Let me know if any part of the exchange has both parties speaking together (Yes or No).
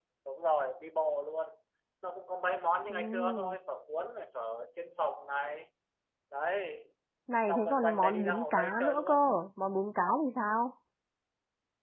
Yes